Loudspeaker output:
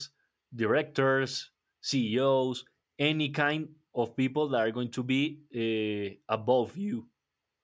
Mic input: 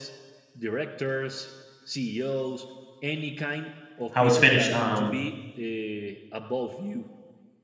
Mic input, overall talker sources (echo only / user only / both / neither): both